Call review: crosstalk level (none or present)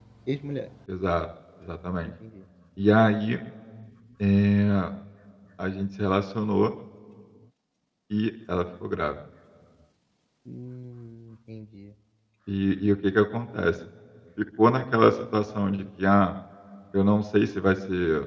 none